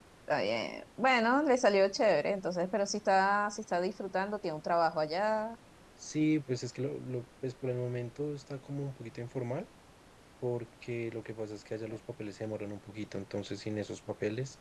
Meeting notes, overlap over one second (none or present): none